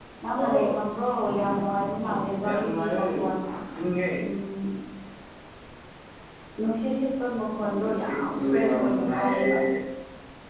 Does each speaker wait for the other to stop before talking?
No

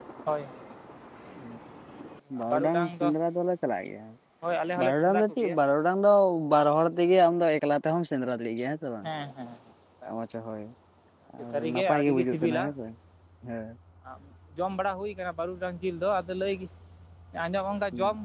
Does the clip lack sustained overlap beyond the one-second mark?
No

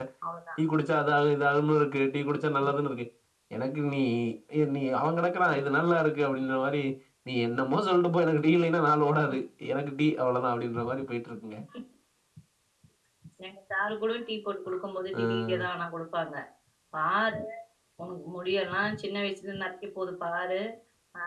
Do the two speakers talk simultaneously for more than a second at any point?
No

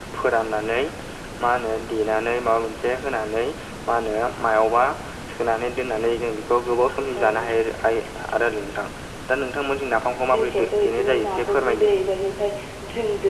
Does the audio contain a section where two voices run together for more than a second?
Yes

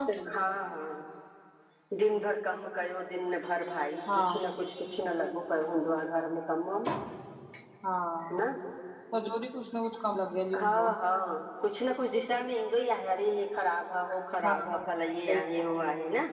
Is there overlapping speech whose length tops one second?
No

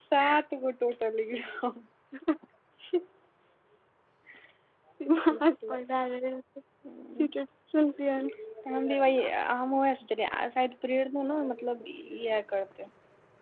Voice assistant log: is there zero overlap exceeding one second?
Yes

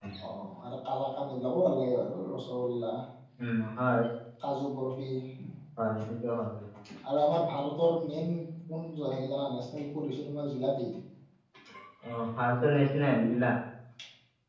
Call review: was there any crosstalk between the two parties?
No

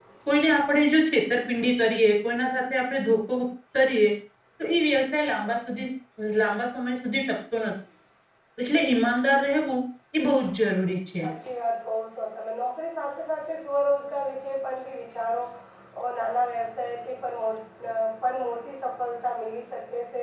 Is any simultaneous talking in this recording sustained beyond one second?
No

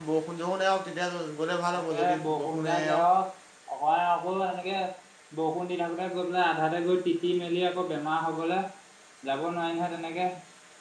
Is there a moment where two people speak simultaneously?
Yes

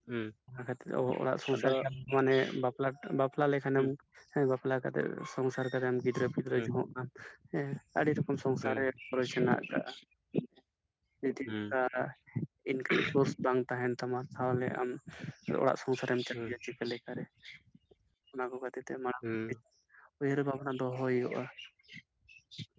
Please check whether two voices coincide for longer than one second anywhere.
No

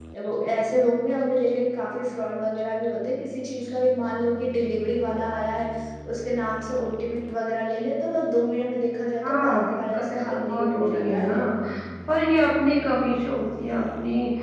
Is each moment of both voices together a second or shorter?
No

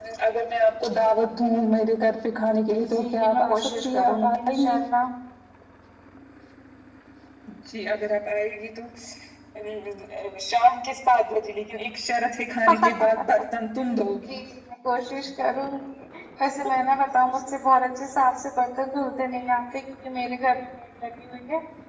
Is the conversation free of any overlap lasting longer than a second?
No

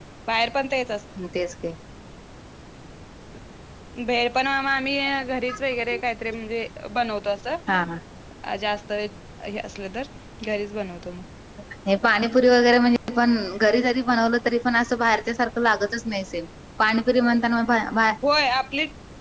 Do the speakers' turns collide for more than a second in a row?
No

